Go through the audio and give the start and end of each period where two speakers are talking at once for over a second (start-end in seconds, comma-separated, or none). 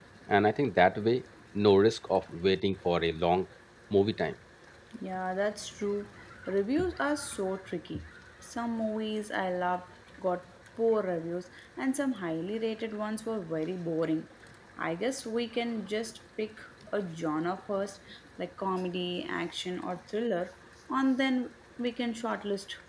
none